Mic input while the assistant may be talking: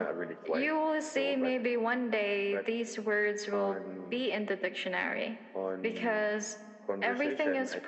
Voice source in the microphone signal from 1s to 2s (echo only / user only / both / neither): echo only